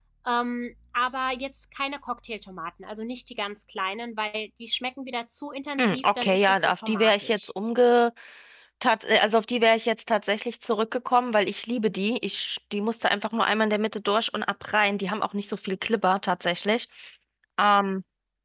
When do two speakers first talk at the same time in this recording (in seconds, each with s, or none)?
5.8 s